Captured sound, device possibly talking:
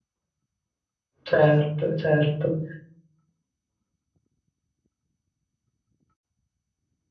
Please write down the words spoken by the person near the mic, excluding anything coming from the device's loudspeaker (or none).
Certo, certo.